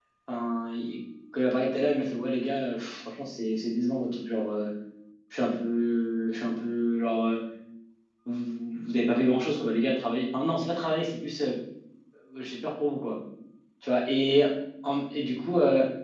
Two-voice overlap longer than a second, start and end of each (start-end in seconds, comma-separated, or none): none